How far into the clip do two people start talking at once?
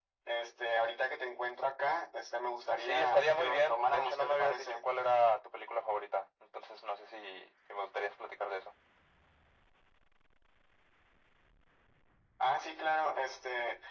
3 s

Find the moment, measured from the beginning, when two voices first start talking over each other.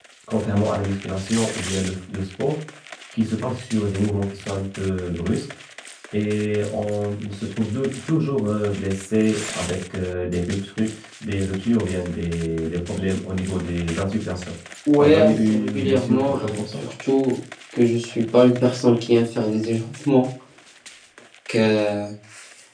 15 s

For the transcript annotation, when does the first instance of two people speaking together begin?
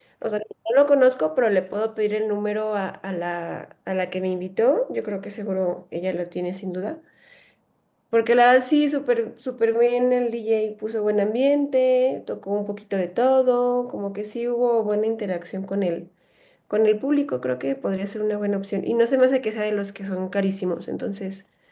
none

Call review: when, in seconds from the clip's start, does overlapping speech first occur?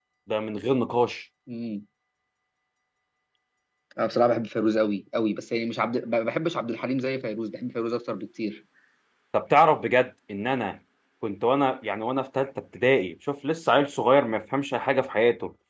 none

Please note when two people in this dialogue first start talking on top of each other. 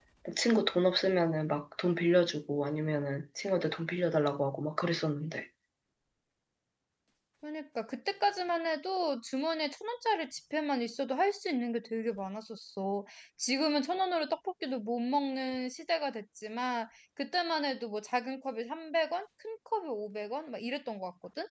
none

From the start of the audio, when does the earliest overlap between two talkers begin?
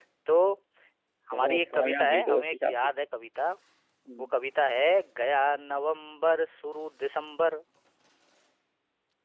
1 s

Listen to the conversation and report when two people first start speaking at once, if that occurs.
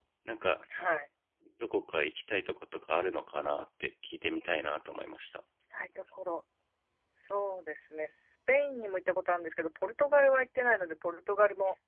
none

